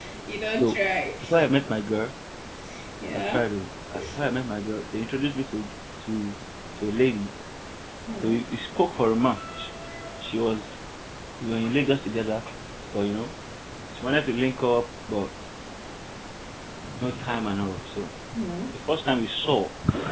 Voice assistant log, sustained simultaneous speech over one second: none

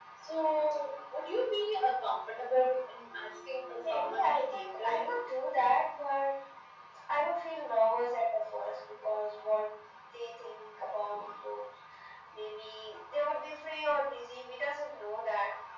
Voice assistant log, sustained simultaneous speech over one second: present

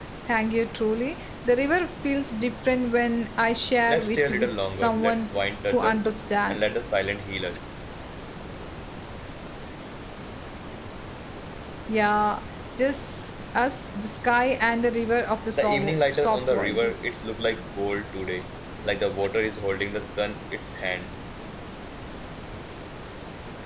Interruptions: present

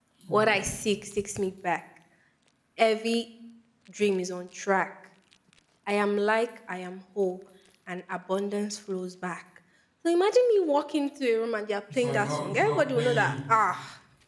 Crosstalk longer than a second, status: present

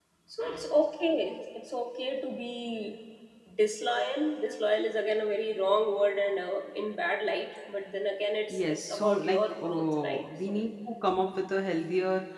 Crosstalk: present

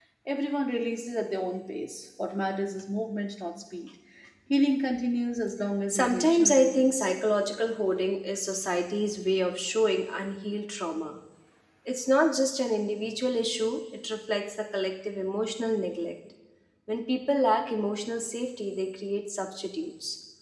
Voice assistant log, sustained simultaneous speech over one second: present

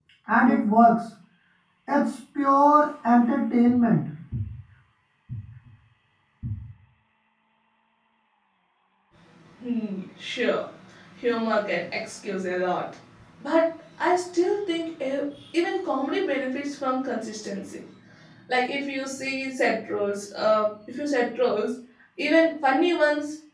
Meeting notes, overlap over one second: none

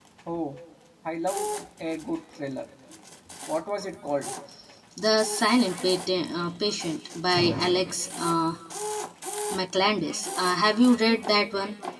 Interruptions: none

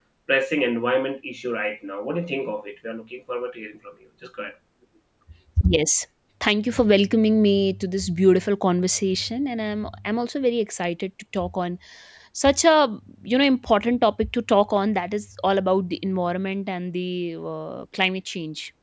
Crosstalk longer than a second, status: none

